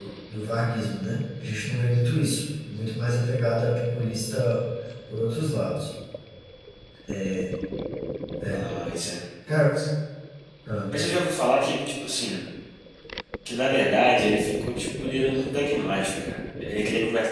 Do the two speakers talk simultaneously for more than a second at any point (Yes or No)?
No